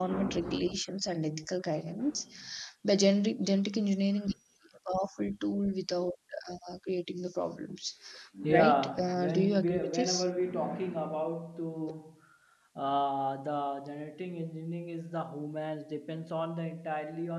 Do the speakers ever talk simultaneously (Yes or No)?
Yes